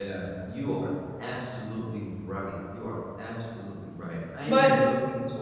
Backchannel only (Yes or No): Yes